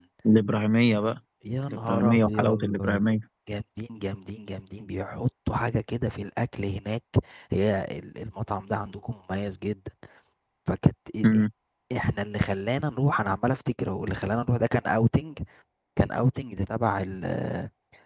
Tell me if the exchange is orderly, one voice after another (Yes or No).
No